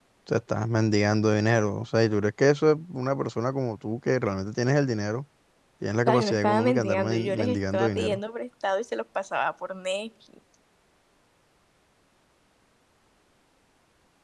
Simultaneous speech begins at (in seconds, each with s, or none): 6.1 s